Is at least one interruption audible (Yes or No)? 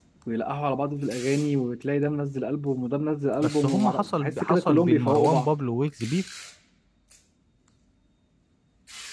Yes